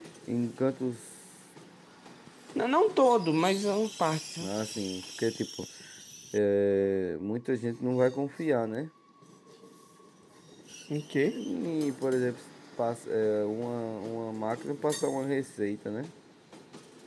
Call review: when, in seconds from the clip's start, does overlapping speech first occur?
none

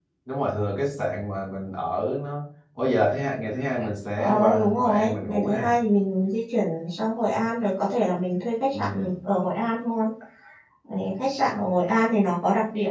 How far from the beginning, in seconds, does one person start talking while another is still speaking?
4.2 s

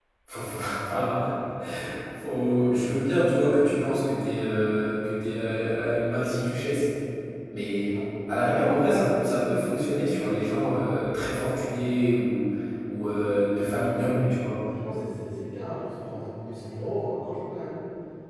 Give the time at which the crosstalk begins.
none

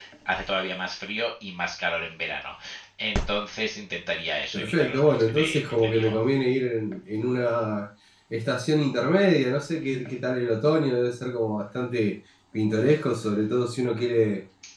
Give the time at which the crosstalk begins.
4.5 s

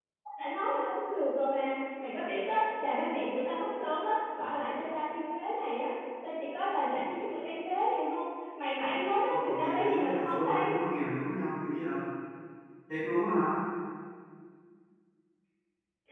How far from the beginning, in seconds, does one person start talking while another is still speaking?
9.3 s

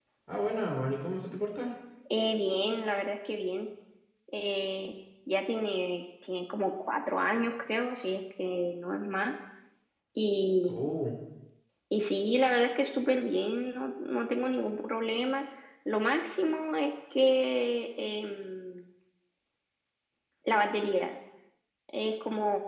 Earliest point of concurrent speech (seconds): none

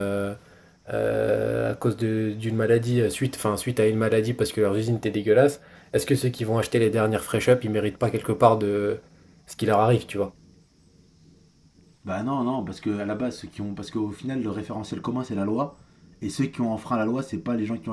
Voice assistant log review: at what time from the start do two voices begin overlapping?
none

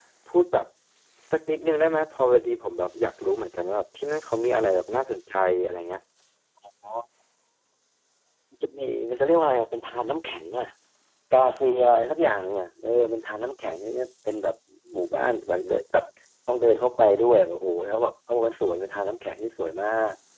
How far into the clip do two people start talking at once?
none

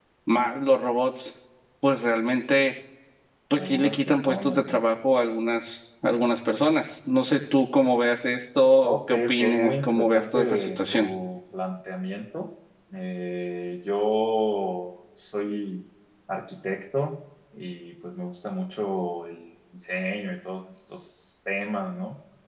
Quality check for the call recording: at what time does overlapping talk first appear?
3.6 s

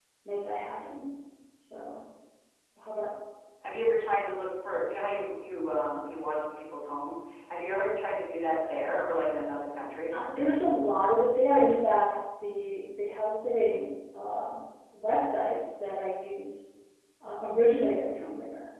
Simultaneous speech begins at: none

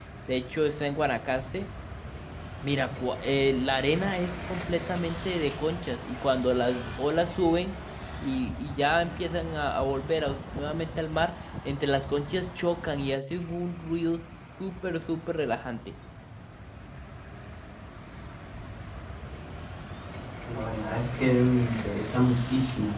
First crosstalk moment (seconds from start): none

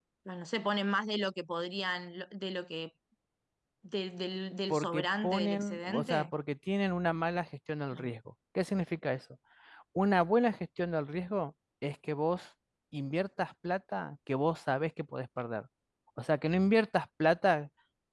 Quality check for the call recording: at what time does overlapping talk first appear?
4.7 s

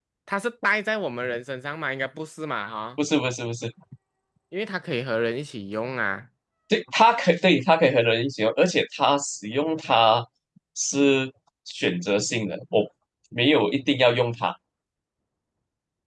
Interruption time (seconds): none

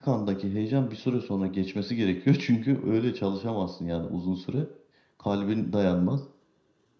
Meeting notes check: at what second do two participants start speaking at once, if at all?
none

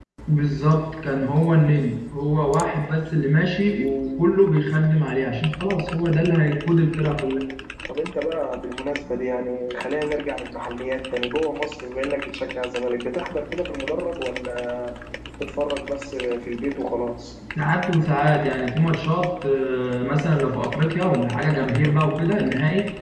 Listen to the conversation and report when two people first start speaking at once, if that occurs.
none

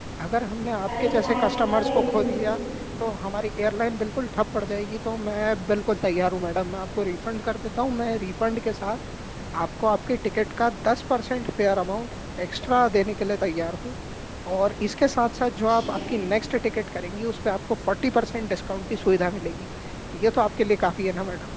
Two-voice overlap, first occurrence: 1.0 s

